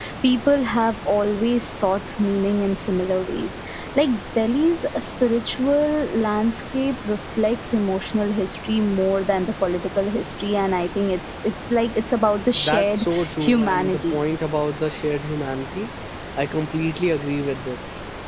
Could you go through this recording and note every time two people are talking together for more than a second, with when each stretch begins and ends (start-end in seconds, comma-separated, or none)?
12.6-14.2